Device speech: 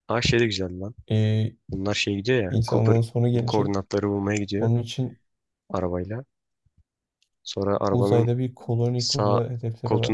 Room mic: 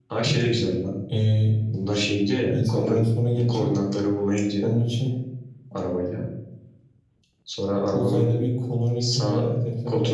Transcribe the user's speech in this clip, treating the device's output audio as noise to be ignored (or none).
none